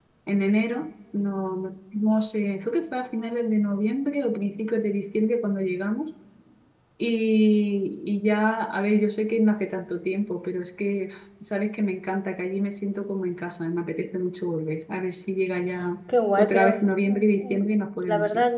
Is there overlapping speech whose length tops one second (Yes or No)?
Yes